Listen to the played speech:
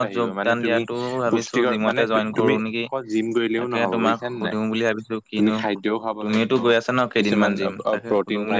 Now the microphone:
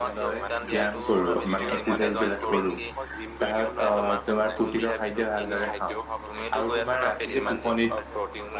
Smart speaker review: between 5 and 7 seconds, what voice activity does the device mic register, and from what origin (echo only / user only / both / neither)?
both